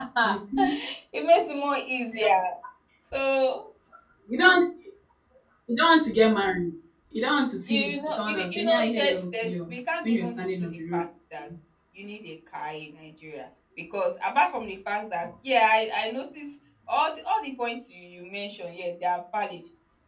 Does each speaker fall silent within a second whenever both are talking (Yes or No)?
No